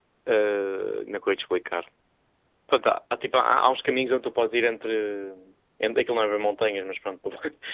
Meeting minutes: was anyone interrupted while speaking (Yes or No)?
No